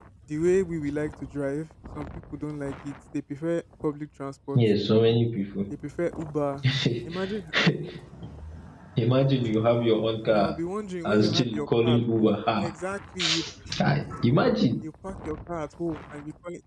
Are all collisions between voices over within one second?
No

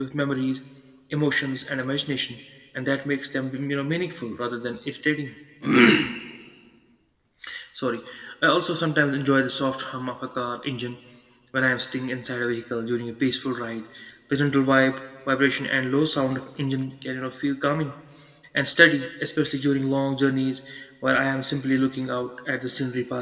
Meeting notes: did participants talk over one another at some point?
No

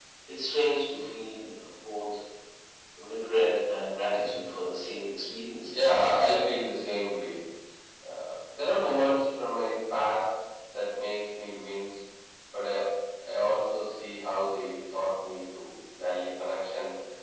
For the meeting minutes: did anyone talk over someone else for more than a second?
No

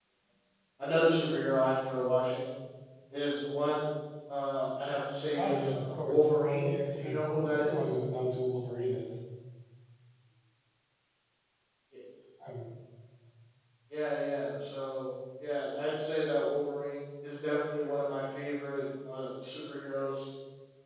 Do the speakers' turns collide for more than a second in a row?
Yes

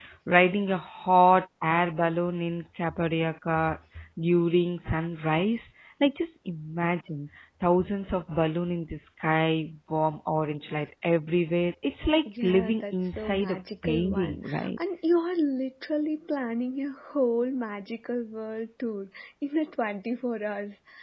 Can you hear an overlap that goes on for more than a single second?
Yes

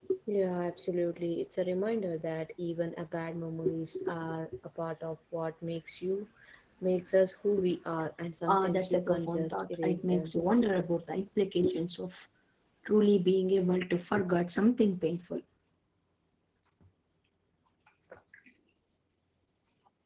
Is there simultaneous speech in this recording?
Yes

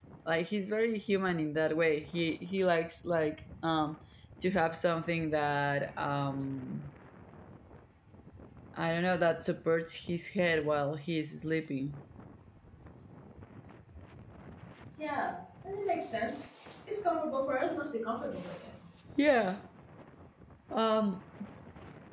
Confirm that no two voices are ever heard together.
Yes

